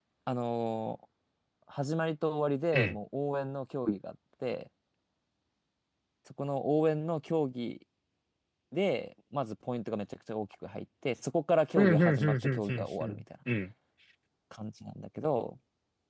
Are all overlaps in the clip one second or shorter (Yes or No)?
No